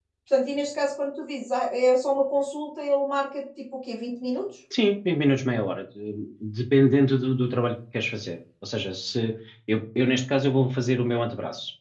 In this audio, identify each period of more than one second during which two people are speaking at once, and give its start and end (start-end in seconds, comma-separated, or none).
none